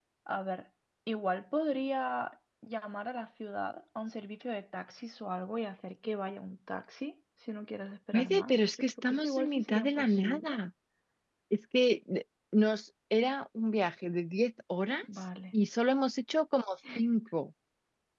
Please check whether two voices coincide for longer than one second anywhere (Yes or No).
Yes